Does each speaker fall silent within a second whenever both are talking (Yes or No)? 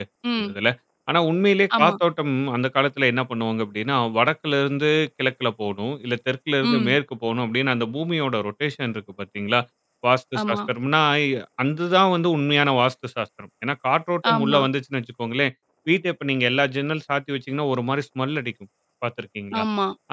Yes